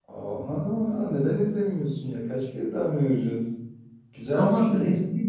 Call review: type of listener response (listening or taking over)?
taking over